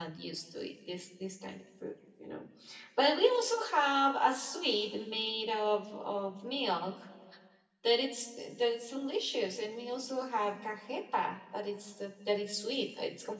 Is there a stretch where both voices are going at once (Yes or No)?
No